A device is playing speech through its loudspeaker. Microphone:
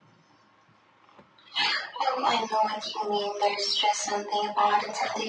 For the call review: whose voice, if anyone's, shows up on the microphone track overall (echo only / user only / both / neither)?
echo only